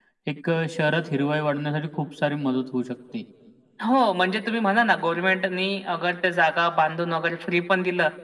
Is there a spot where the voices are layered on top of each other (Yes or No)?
No